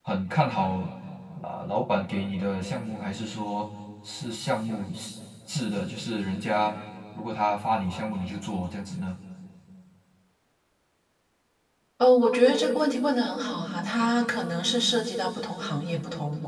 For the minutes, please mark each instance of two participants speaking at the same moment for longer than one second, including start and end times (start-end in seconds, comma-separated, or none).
none